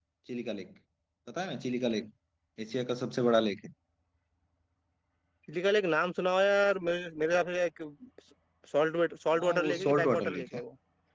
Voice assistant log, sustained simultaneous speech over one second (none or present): present